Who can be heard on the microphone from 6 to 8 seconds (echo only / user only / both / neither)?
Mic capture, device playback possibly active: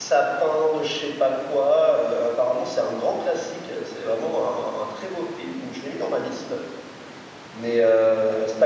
user only